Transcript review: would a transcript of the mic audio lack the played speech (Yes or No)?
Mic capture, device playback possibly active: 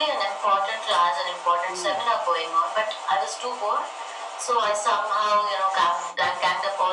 No